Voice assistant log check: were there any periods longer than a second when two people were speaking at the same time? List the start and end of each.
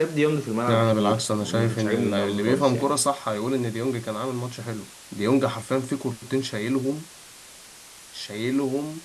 0.7-2.9

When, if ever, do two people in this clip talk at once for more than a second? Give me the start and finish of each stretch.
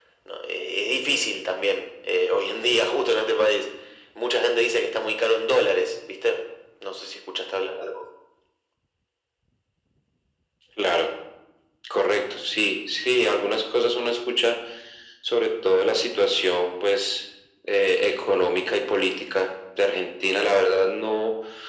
none

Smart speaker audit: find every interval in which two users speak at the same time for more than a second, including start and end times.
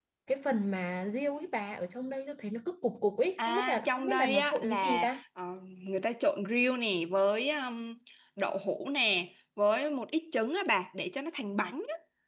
3.5-5.2

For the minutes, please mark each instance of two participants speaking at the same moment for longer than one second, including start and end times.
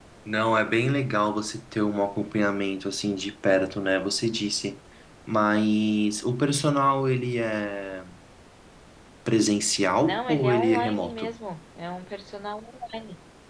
10.0-11.3

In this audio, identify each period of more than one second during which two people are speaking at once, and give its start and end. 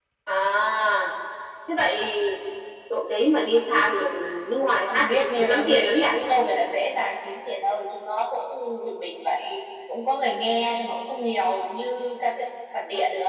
4.6-6.0

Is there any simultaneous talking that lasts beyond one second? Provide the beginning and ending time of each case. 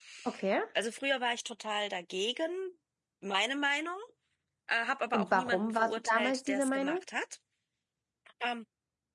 5.1-7.0

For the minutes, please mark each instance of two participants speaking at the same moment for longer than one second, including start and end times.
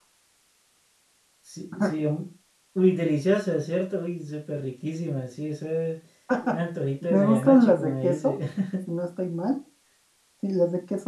7.1-8.3

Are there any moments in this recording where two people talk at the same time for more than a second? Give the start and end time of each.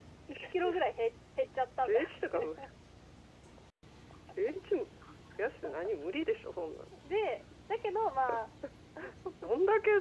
none

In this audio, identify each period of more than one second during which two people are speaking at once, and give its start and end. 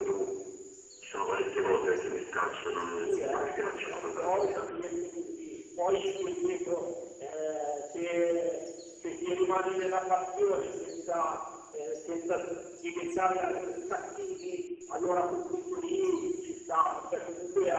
2.9-4.6

